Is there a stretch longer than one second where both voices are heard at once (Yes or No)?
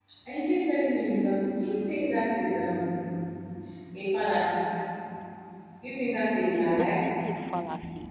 No